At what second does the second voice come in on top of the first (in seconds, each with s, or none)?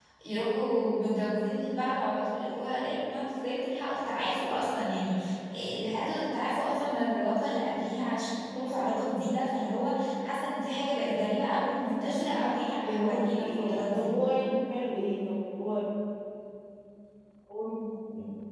12.0 s